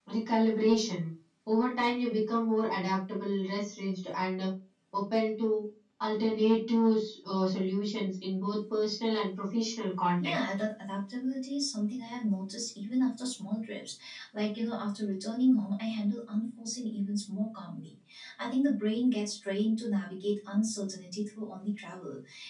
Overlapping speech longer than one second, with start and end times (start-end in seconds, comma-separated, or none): none